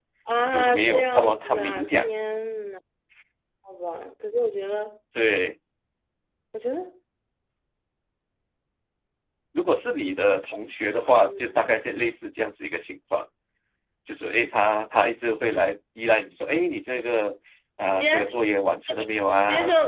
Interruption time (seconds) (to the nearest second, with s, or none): 1 s